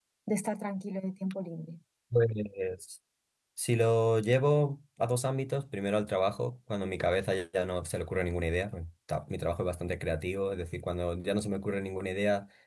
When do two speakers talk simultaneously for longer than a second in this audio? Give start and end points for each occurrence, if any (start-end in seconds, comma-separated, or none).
none